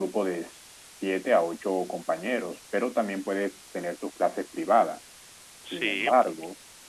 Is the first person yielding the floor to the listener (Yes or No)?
No